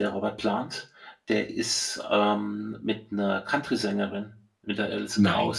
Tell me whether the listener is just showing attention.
Yes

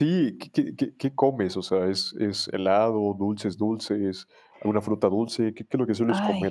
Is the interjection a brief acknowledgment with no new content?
No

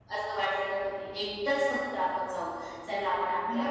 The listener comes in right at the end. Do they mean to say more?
No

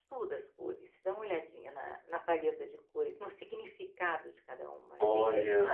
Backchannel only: No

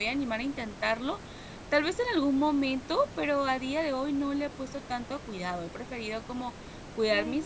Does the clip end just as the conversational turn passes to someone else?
No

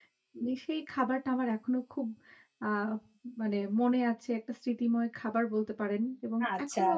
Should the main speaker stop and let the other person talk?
Yes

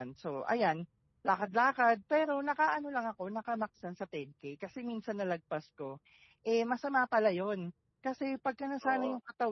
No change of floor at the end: Yes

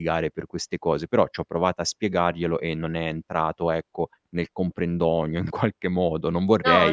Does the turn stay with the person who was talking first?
No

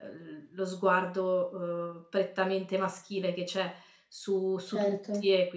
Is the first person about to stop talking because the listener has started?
No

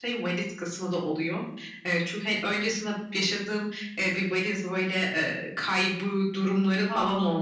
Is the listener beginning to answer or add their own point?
No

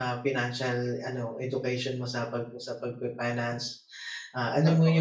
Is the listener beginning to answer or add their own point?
No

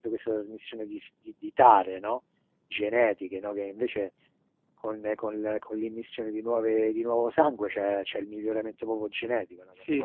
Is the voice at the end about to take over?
Yes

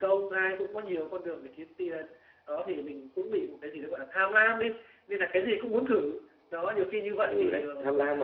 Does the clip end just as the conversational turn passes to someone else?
Yes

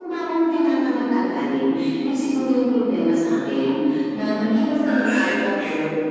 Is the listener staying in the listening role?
Yes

